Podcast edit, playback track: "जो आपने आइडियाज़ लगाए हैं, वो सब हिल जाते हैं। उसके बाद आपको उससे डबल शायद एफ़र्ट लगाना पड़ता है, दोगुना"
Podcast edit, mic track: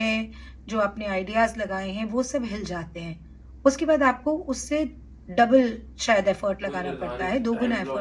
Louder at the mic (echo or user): echo